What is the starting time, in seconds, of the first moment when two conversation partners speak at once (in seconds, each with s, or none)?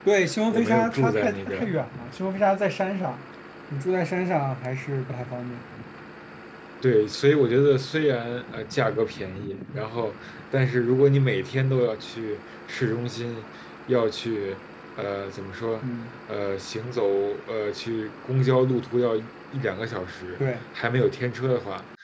0.5 s